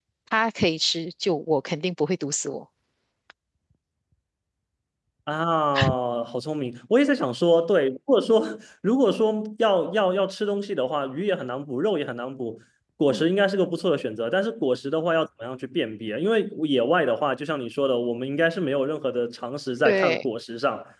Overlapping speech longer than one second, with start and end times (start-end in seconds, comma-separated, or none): none